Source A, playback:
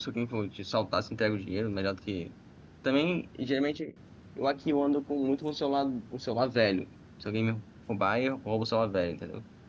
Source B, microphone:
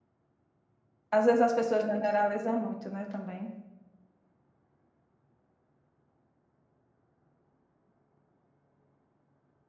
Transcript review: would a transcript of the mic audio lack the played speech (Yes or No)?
Yes